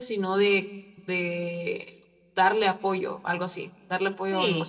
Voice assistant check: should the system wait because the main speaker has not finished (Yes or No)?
No